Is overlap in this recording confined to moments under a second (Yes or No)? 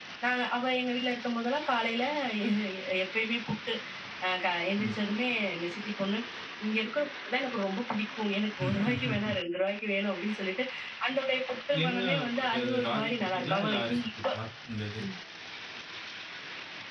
No